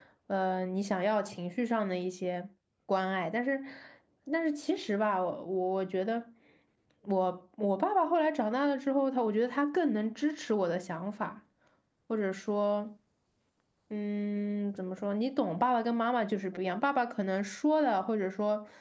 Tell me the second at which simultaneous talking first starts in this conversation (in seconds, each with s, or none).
none